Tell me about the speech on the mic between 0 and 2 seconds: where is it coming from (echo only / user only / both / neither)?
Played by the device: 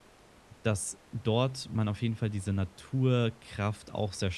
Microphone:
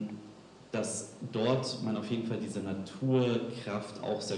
echo only